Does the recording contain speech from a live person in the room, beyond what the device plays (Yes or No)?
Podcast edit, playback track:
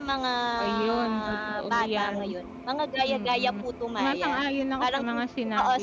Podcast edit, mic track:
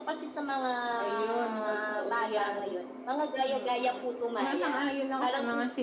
No